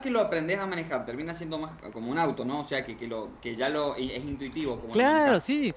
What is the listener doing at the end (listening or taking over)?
taking over